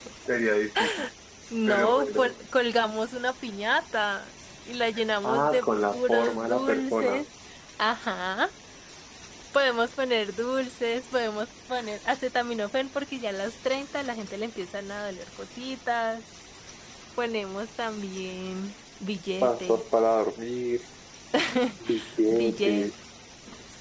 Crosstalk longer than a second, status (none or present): present